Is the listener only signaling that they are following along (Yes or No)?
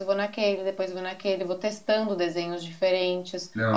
Yes